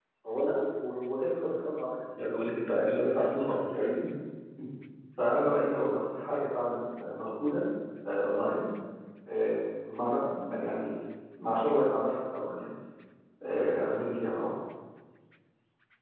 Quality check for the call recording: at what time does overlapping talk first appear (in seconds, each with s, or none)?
2.2 s